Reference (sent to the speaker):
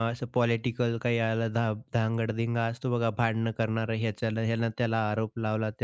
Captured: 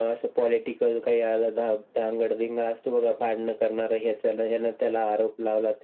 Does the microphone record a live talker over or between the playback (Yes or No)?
No